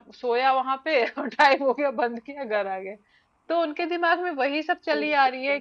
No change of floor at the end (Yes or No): Yes